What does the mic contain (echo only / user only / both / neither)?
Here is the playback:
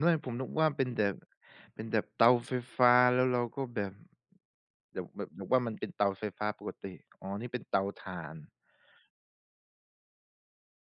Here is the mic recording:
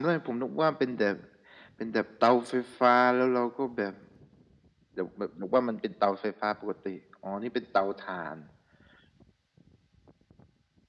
echo only